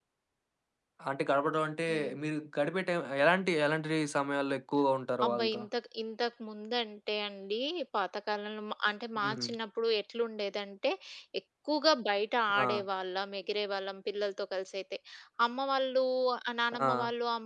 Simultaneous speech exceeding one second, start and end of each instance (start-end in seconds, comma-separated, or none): none